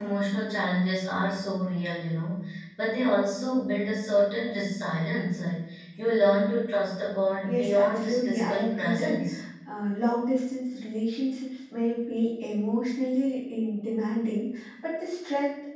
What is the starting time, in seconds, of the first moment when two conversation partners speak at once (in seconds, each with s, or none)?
7.5 s